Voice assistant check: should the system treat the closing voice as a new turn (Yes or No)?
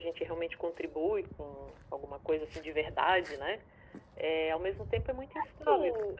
Yes